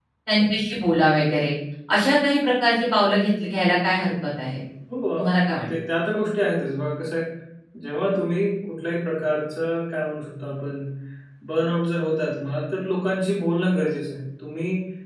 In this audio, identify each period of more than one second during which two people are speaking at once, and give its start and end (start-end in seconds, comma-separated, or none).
none